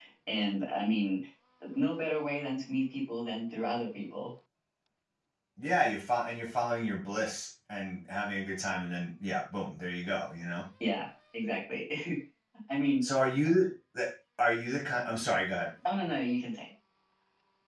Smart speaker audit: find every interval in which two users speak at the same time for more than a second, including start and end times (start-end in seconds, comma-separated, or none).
none